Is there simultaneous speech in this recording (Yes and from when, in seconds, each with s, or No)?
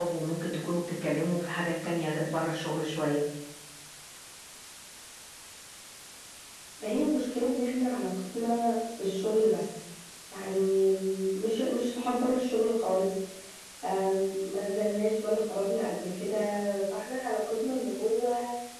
No